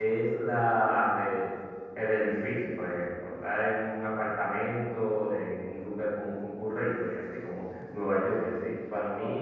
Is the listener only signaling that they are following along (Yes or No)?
Yes